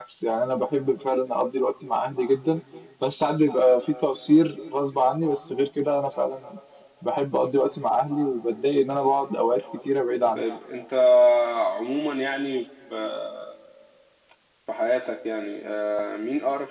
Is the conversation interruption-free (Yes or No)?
Yes